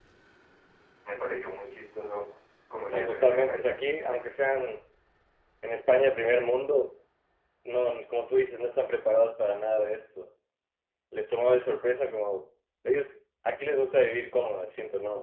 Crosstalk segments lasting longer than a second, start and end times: 2.8-4.3

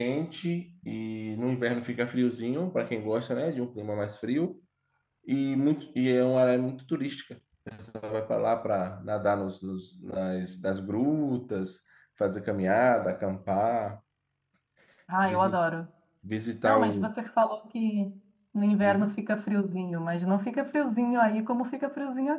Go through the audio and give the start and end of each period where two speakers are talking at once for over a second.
none

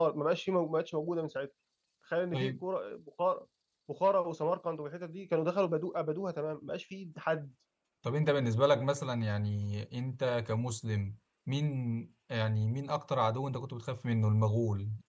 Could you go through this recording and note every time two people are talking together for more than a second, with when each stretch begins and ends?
none

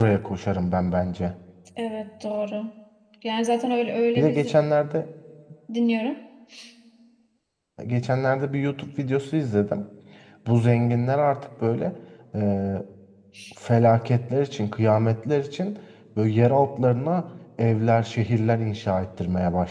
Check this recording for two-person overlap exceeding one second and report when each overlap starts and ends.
none

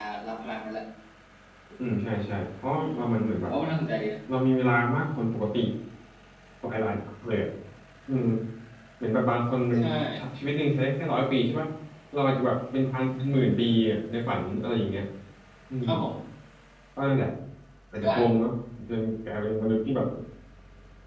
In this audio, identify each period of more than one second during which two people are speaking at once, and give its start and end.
none

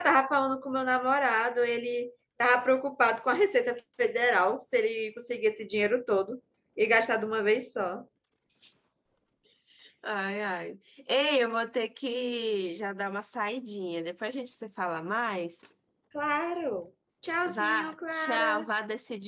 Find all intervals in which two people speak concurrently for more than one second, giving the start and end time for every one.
17.4-18.6

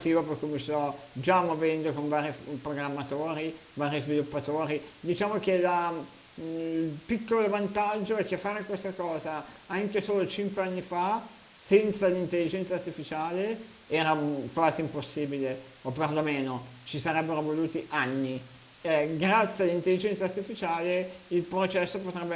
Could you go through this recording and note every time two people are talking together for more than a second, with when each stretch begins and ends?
none

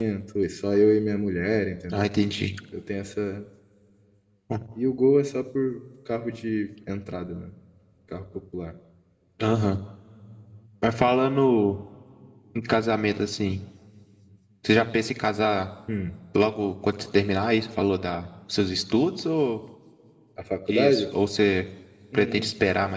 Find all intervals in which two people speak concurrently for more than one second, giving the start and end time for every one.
none

